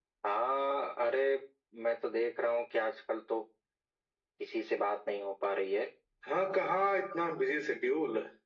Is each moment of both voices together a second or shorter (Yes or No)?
Yes